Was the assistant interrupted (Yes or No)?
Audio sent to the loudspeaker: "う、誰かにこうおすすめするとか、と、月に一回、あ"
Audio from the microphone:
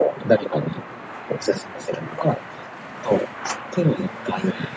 No